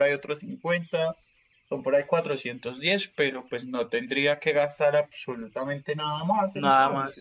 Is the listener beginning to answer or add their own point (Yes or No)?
Yes